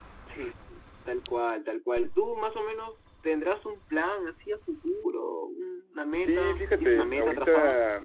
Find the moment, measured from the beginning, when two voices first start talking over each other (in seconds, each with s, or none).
6.2 s